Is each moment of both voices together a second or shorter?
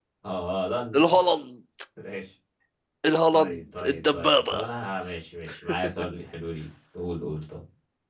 No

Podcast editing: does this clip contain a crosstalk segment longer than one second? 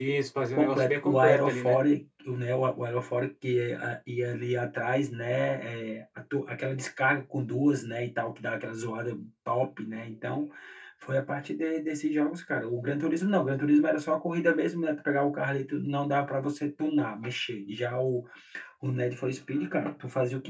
Yes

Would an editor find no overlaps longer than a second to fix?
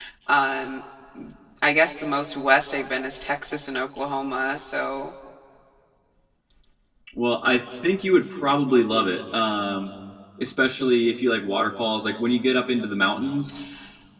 Yes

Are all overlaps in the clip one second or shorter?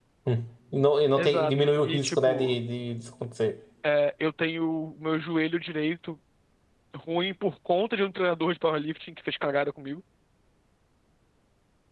No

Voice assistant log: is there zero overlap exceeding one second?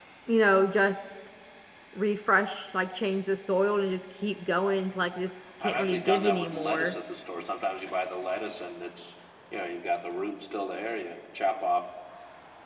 No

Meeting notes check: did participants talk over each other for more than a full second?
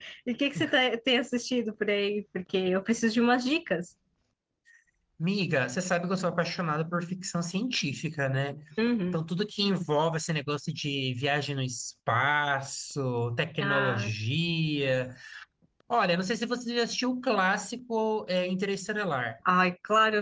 No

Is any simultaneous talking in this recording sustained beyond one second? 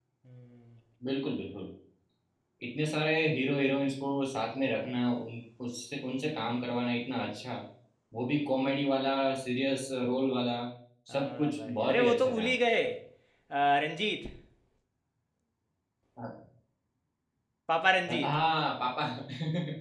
Yes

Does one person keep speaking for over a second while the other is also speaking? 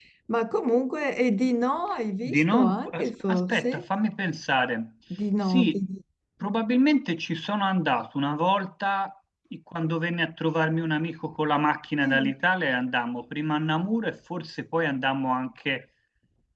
Yes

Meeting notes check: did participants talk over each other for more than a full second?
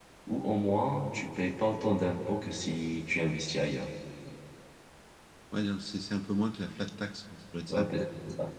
No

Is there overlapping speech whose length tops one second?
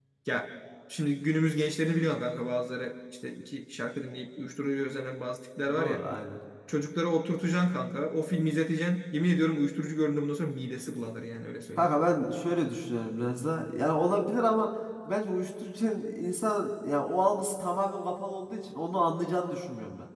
No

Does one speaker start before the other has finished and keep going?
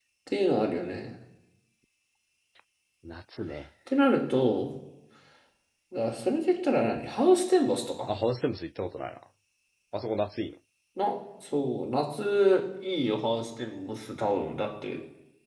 No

